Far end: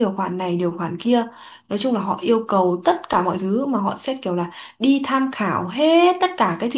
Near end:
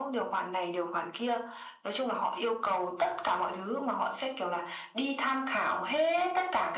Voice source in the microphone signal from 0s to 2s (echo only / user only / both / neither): echo only